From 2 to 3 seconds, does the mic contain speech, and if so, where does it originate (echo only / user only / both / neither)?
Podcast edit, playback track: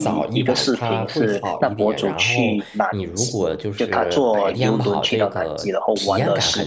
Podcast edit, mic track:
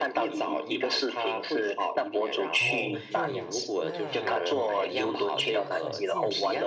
both